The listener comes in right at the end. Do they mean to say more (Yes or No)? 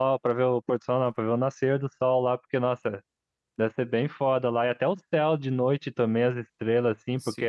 Yes